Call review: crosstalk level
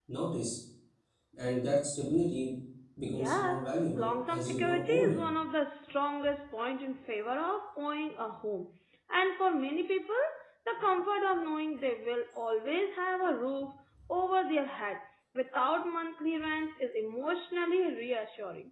present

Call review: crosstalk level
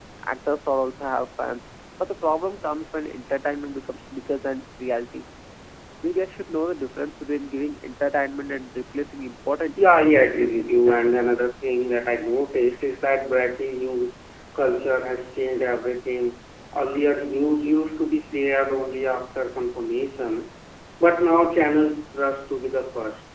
present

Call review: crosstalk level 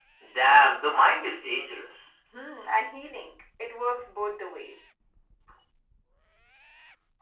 none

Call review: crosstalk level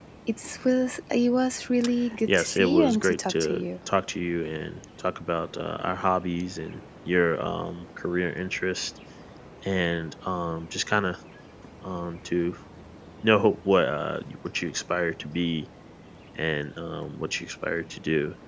present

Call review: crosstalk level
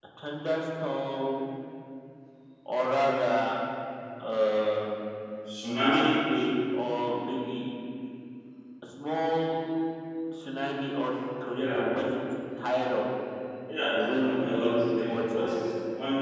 present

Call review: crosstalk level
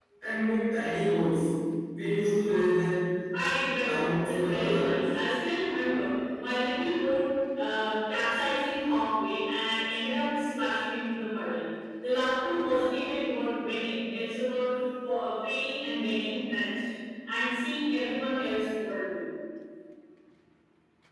present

